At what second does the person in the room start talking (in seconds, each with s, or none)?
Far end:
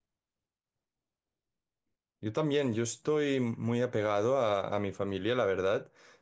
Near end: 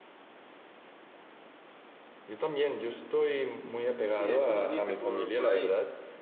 4.2 s